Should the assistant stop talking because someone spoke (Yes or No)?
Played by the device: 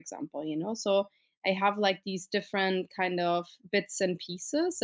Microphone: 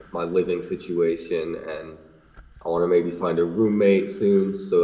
Yes